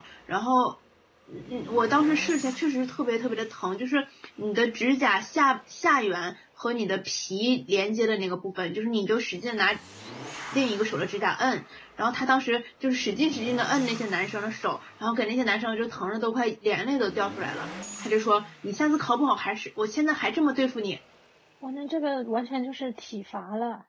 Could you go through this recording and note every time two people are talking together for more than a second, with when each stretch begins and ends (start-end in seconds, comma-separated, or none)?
none